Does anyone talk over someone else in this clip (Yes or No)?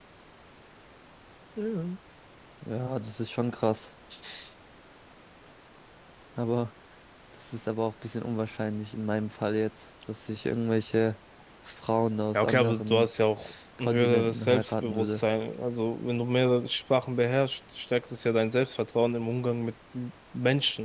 Yes